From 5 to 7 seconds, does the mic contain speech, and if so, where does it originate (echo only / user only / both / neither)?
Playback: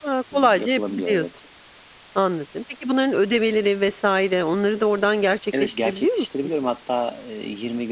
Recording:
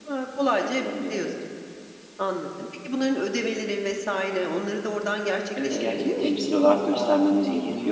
both